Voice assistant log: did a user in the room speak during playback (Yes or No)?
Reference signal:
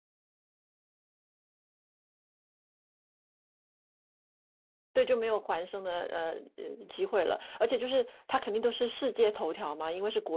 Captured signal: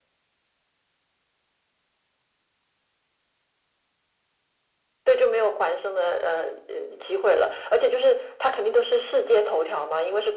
No